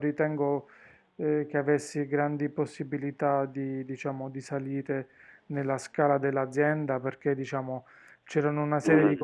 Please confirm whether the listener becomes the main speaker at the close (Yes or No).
No